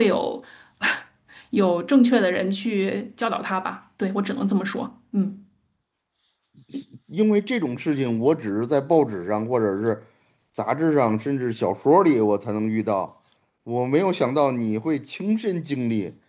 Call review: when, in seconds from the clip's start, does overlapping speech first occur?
none

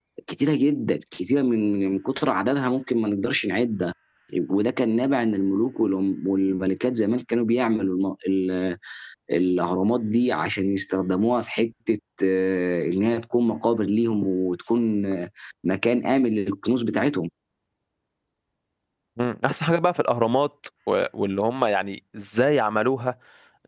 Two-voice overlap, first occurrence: none

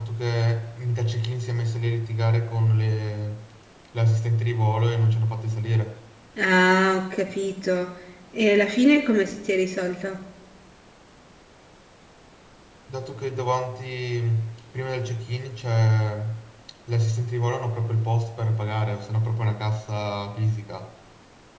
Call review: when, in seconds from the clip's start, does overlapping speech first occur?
none

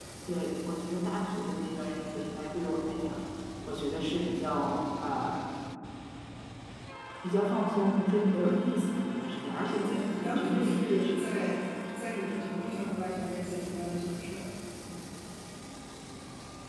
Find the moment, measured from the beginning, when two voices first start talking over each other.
10 s

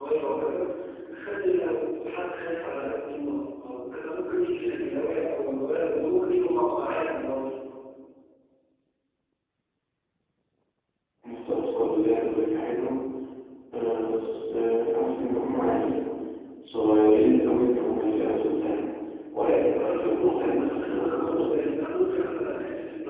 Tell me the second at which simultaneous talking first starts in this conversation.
20 s

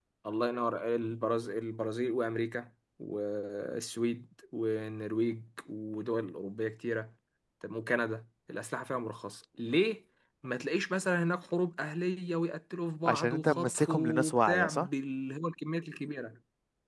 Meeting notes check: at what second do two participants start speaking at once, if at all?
13 s

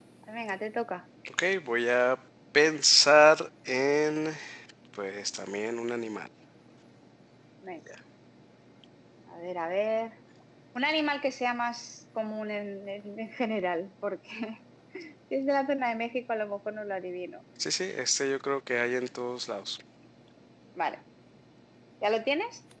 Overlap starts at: none

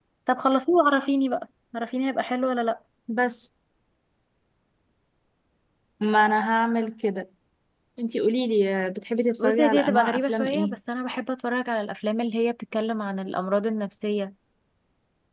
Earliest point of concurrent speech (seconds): 9 s

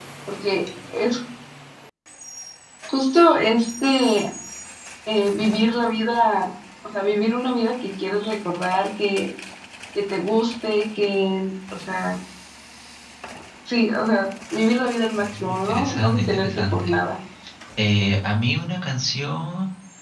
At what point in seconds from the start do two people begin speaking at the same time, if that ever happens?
15 s

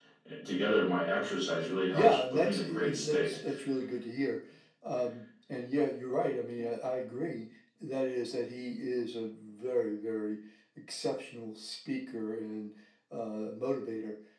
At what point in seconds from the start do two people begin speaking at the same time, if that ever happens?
2 s

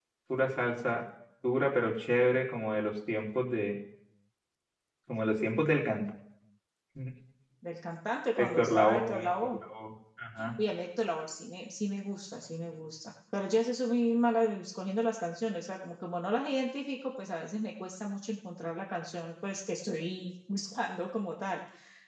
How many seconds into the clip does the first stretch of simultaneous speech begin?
8 s

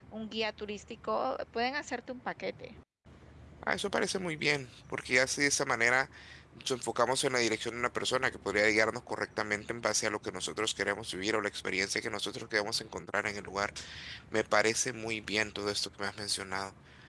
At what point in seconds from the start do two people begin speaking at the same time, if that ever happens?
none

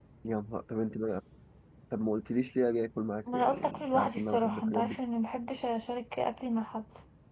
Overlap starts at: 3 s

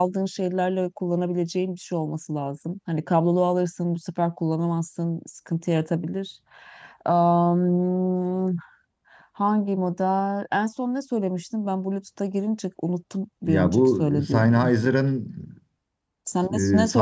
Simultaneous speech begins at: 13 s

